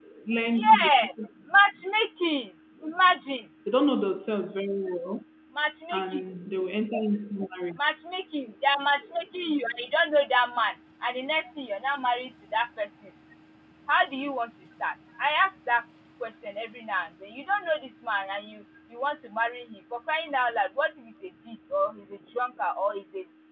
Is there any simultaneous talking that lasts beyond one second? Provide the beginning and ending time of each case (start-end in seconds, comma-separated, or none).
none